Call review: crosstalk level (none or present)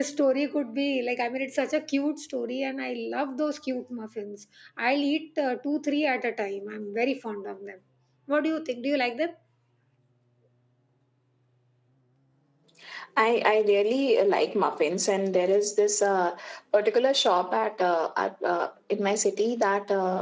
none